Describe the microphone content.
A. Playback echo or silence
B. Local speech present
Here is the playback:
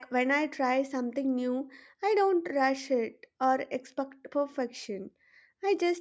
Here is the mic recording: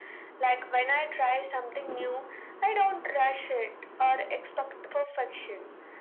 A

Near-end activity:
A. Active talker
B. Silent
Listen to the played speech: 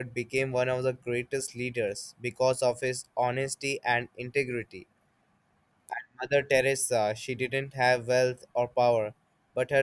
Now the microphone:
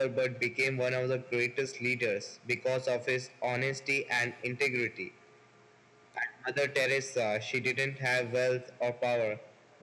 B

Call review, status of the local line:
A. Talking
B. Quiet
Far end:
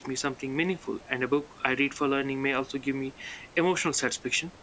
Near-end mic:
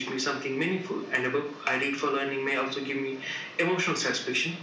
B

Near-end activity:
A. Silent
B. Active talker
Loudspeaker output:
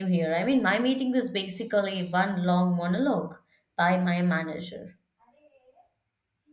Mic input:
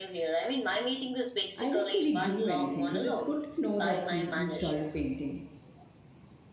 B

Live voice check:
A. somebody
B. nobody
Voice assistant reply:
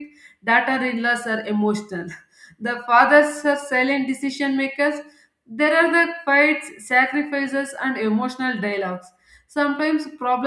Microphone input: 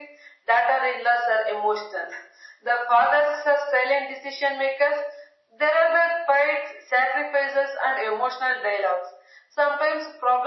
B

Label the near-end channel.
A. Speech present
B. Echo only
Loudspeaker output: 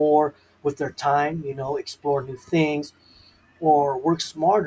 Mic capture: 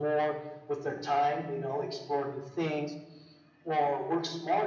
B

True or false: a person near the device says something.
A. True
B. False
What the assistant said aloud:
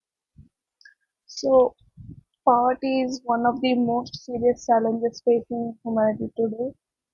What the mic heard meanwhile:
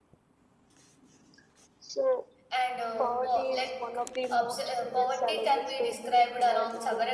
A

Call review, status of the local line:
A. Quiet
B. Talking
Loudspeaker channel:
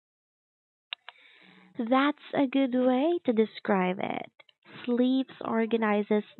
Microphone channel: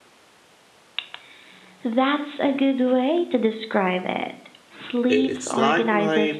B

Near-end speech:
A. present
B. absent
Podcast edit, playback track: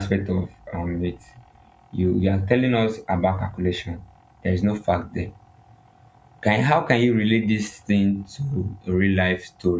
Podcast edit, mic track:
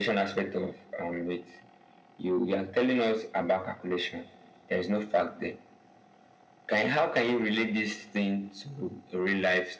B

